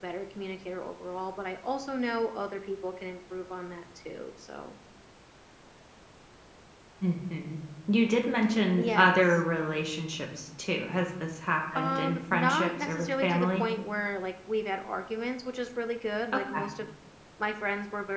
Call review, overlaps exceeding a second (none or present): present